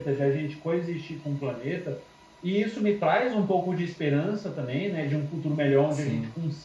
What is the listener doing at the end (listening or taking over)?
listening